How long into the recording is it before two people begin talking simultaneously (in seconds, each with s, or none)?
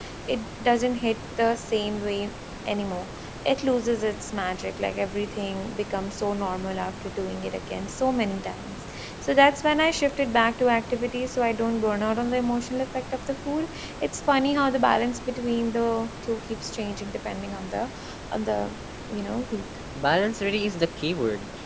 none